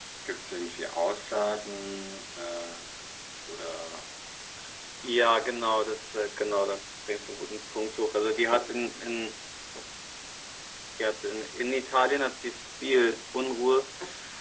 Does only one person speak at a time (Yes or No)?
Yes